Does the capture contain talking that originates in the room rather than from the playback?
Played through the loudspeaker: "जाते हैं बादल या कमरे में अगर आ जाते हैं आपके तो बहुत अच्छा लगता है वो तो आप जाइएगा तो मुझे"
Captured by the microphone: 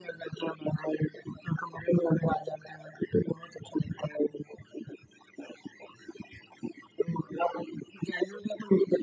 No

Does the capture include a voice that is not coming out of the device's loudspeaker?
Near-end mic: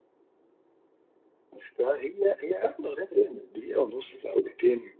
No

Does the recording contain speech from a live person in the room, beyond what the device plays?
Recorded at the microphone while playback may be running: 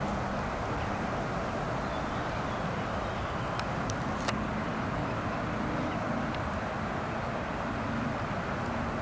No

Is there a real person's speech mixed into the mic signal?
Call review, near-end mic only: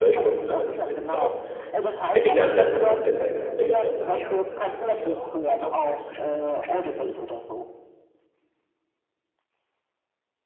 Yes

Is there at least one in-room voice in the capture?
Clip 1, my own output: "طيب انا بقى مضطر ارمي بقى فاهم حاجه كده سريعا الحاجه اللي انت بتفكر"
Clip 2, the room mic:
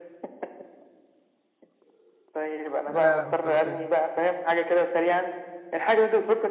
Yes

